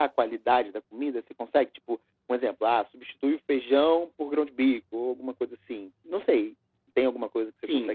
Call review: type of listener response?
taking over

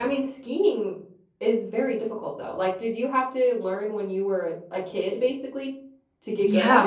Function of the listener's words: taking over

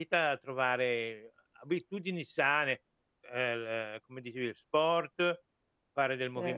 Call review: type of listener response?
listening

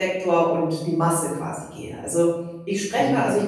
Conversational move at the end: listening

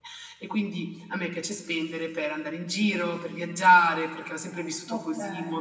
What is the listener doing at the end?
listening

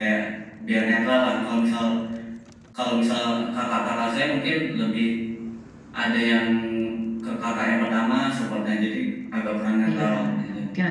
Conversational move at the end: taking over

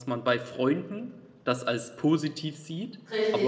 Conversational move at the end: listening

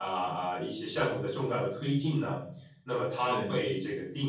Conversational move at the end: listening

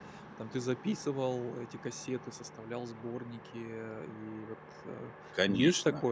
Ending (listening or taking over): taking over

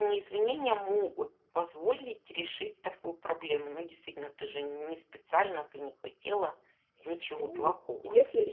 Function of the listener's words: taking over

